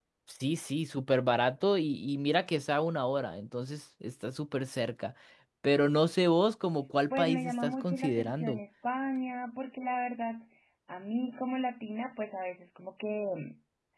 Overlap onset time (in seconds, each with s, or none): 7.1 s